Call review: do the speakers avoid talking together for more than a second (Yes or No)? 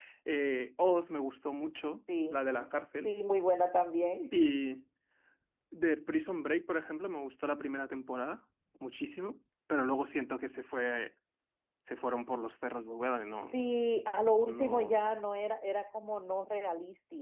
Yes